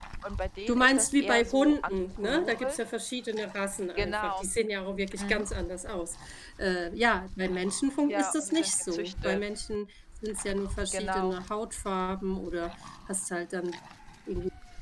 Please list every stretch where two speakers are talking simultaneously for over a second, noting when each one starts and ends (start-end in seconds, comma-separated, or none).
0.7-2.8, 8.1-9.4